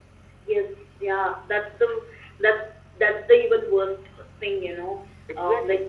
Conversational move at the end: listening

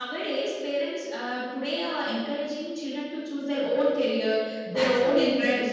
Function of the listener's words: listening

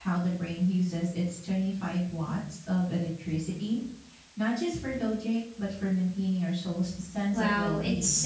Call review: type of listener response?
taking over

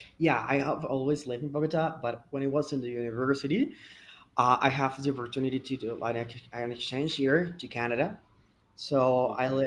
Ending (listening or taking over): listening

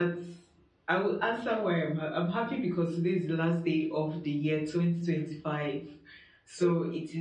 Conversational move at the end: listening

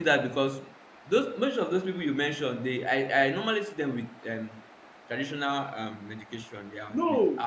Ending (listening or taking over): taking over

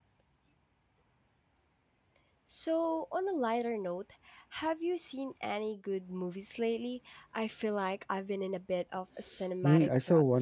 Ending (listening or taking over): taking over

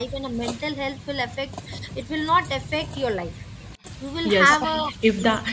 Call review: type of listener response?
taking over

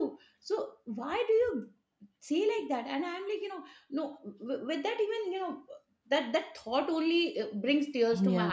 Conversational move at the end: listening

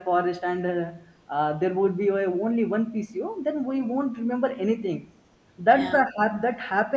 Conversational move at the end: listening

